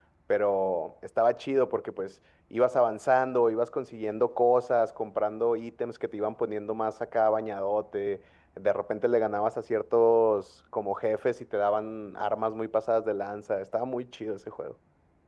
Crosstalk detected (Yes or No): No